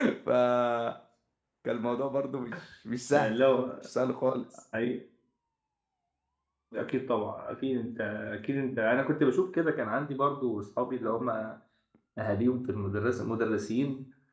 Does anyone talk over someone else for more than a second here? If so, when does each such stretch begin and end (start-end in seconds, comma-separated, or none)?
none